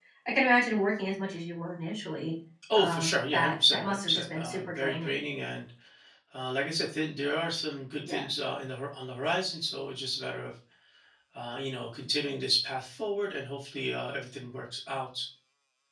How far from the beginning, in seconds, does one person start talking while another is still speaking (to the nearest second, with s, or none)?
3 s